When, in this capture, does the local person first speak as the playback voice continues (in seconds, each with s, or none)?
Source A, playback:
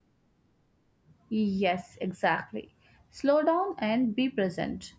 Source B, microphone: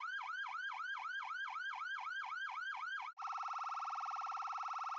none